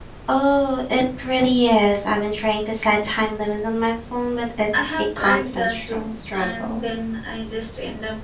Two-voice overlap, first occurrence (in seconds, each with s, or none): 4.7 s